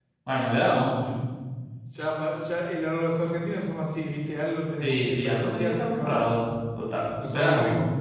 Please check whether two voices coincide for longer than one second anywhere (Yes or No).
Yes